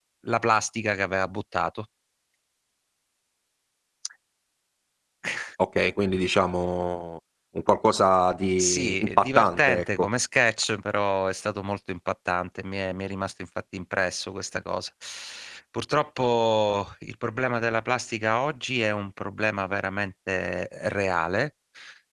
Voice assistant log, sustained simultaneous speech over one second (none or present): present